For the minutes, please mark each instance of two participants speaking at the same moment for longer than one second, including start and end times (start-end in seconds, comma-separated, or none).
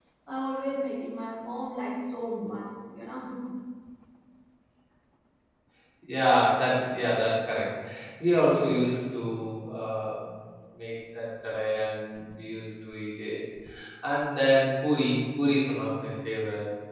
none